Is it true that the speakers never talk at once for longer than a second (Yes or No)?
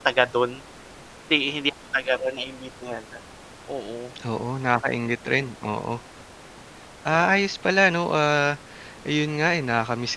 Yes